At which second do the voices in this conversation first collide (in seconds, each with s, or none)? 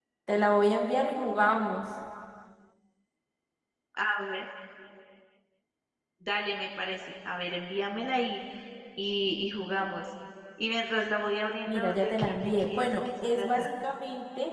11.7 s